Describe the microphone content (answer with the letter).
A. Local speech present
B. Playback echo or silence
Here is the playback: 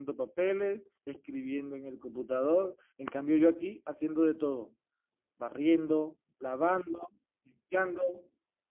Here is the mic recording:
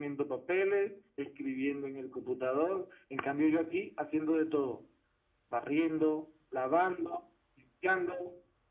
B